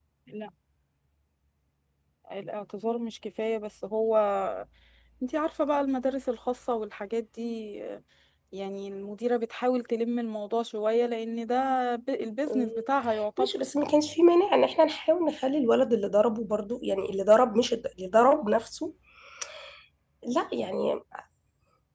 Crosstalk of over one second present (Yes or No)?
No